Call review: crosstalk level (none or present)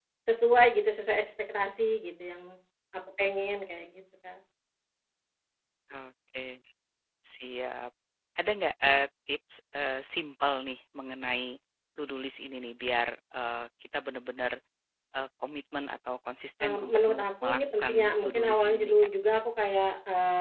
present